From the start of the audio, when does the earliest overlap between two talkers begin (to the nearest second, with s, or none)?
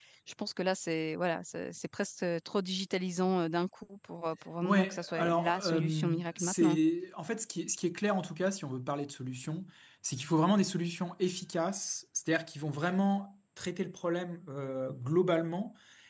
5 s